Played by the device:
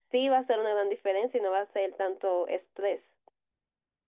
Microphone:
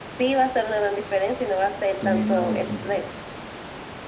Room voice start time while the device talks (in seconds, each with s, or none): 2.0 s